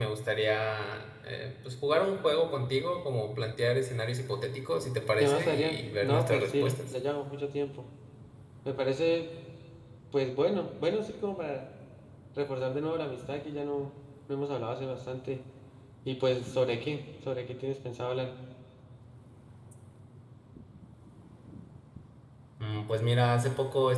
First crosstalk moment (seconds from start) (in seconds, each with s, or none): 5.2 s